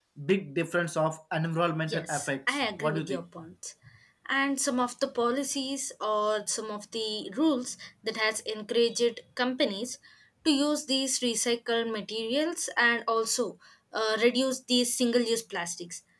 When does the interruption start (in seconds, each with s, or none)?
1.9 s